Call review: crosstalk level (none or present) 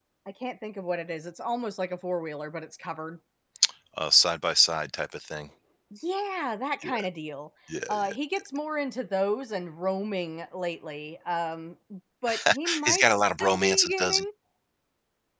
present